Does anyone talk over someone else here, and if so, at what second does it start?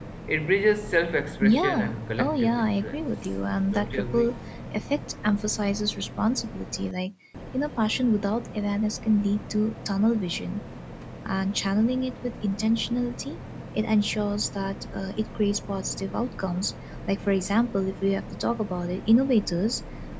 1.4 s

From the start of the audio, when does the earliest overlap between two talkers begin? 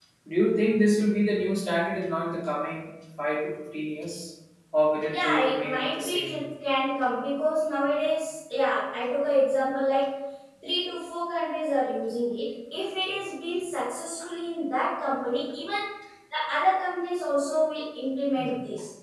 5.1 s

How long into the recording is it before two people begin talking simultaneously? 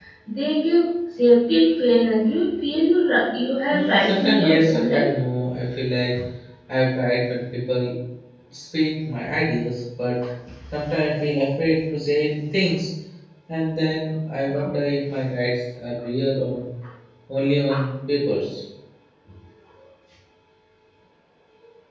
3.7 s

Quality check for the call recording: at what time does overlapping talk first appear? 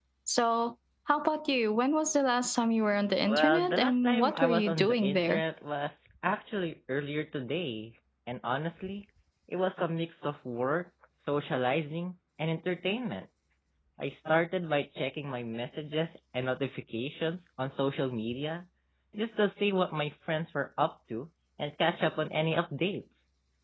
3.2 s

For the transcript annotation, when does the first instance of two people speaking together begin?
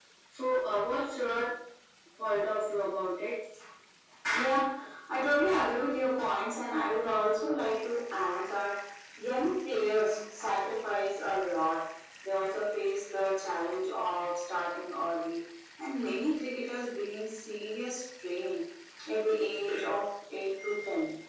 none

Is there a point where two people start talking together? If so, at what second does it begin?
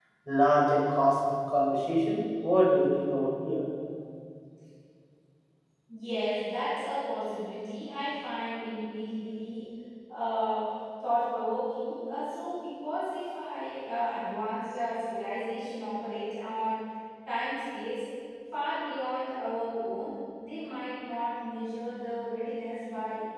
none

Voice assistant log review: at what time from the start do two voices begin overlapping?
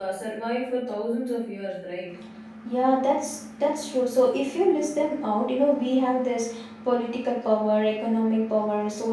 none

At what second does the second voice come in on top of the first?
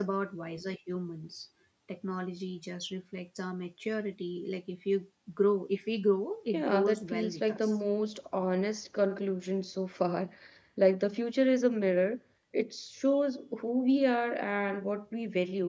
6.5 s

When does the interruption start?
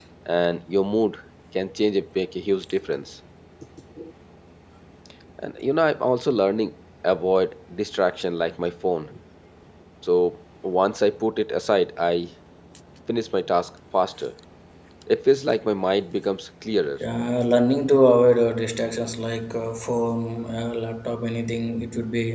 none

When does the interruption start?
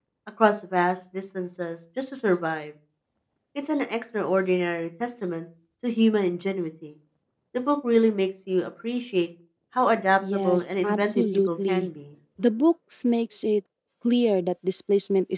10.3 s

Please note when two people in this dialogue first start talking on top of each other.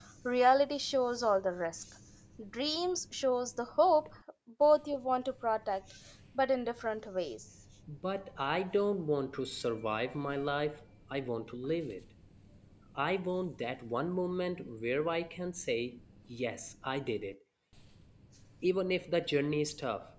none

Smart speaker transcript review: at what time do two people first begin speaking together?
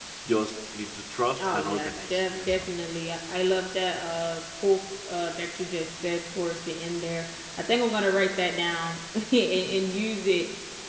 1.4 s

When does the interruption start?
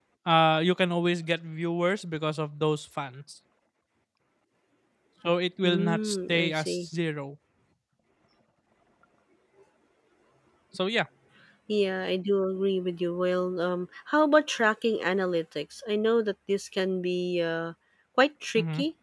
5.6 s

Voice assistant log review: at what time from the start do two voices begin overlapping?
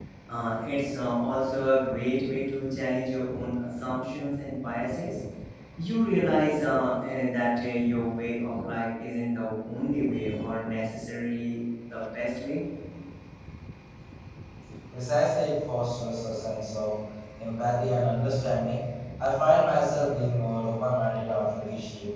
none

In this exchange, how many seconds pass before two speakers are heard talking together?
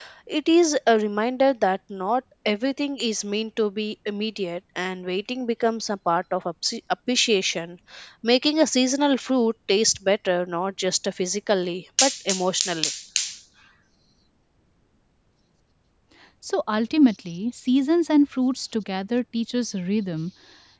none

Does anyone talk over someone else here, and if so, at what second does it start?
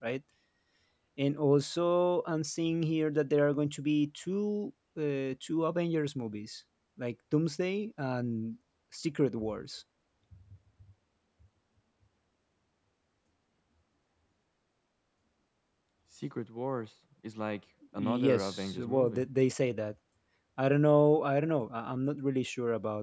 18.0 s

